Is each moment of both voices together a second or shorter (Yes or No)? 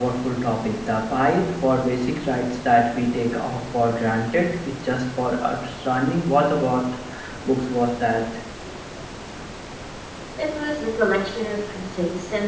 Yes